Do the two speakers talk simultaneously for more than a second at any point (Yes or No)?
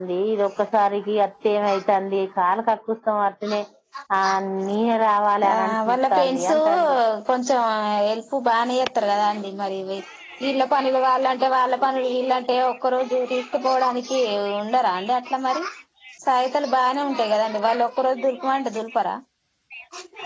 Yes